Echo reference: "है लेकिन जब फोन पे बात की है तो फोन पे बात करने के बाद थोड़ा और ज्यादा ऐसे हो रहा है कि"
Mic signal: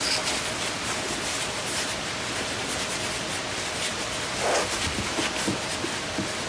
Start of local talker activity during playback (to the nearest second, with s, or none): none